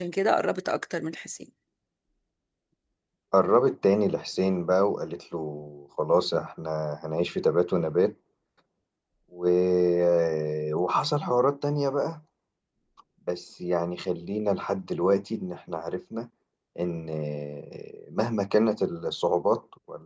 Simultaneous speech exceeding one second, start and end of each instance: none

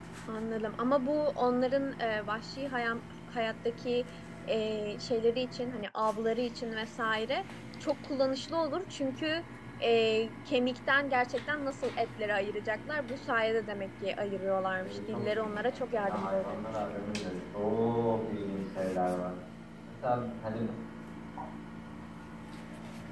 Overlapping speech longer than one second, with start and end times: 14.8-16.6

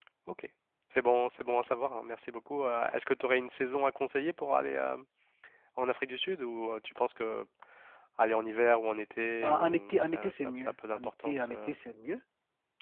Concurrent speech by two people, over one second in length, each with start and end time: 9.4-11.7

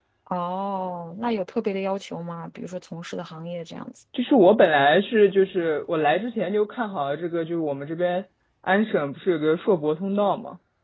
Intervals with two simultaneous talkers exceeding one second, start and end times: none

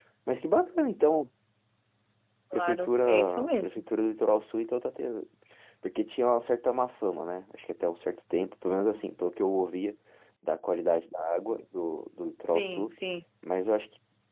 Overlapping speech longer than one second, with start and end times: 2.5-3.8

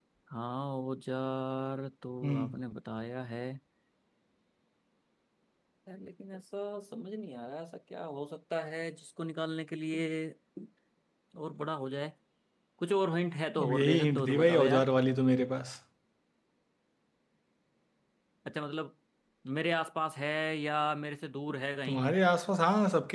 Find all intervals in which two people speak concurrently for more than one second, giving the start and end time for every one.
13.6-14.9

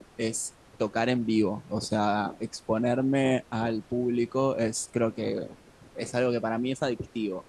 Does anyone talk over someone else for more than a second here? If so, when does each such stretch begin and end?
none

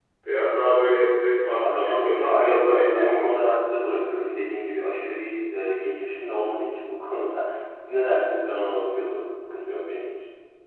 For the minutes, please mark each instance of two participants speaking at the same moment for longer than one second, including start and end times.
1.6-3.3

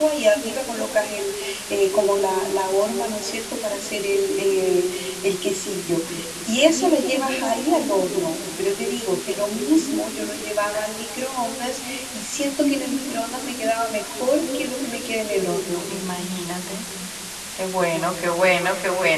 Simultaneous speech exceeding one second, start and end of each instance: none

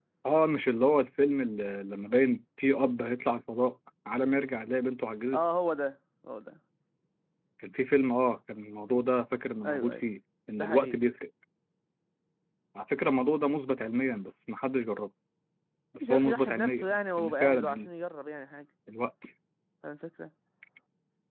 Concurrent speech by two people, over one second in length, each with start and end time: 16.0-17.9

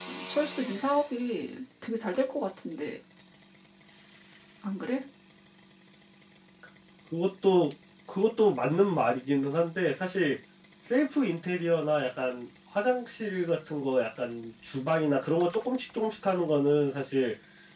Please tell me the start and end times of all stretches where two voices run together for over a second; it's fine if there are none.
none

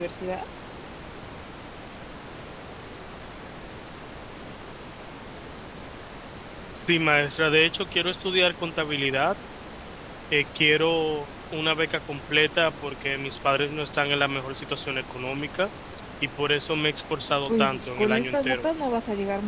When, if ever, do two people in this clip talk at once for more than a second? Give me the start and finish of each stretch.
17.4-18.6

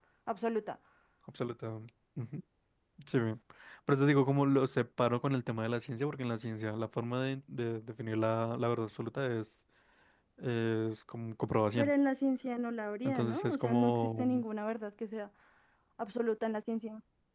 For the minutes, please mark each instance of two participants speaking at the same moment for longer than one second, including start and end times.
13.0-14.4

